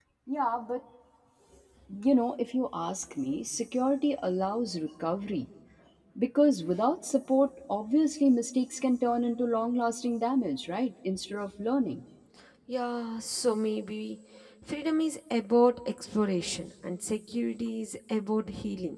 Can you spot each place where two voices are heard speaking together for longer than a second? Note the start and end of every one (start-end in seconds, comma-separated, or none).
none